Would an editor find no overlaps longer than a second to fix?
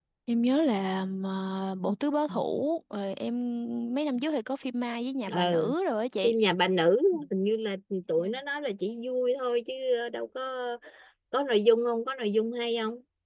Yes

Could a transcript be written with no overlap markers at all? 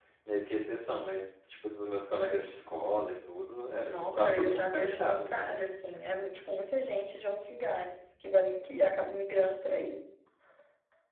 No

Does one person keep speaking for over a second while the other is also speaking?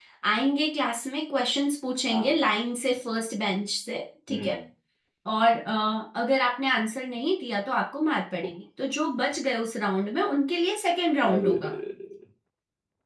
No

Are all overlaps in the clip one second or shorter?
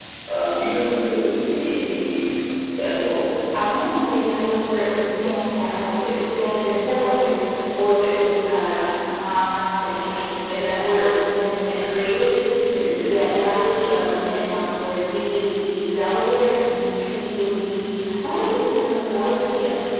Yes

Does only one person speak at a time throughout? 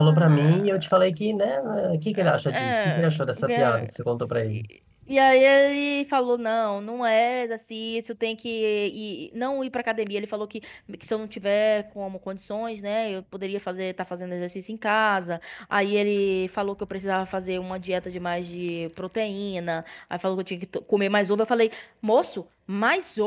No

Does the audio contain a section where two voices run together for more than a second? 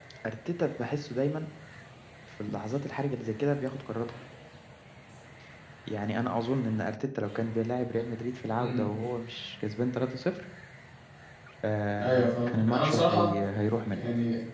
Yes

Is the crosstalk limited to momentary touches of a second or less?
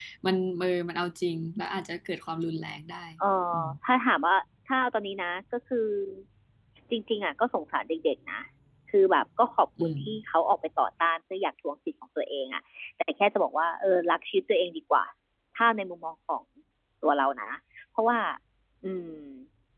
Yes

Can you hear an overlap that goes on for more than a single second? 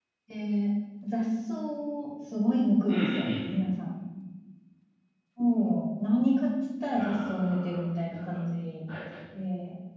Yes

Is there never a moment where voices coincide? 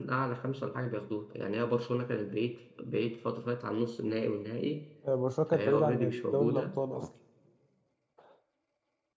No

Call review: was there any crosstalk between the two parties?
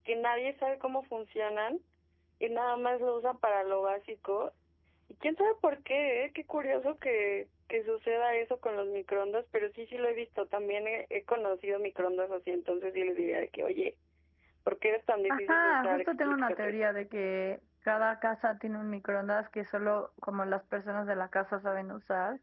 Yes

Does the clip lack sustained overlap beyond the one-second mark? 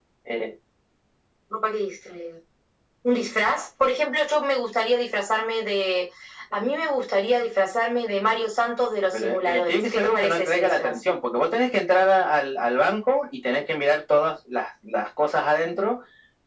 No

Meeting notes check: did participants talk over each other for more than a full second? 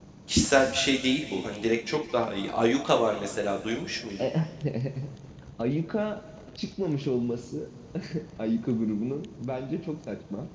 No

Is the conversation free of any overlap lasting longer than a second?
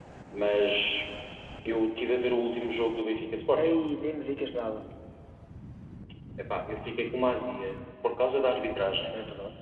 Yes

